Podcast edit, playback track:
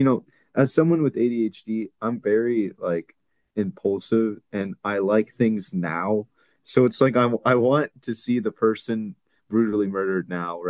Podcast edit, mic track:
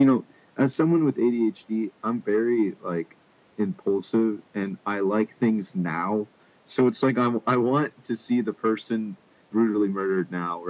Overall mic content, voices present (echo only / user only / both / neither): echo only